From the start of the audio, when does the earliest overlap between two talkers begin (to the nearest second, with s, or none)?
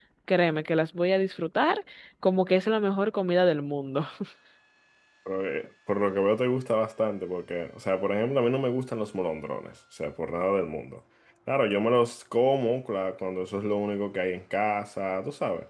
none